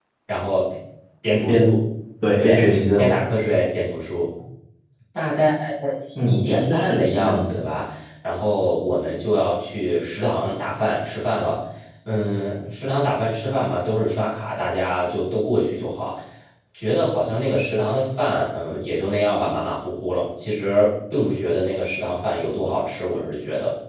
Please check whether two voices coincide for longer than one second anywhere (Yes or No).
Yes